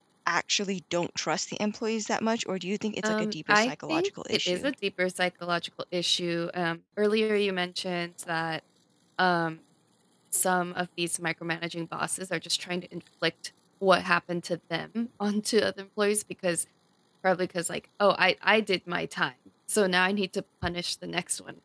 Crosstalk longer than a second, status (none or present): present